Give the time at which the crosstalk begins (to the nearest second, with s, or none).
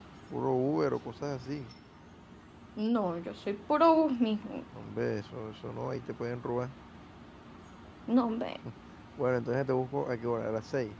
none